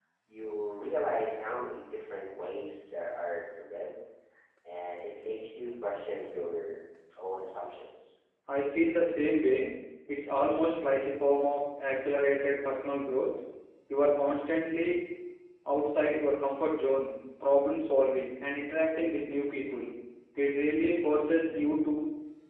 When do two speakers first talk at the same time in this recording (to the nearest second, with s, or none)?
none